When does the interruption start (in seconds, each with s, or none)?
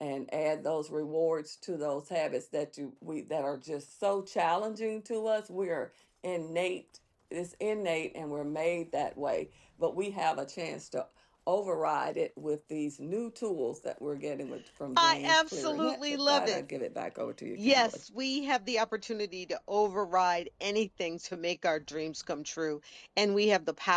15.0 s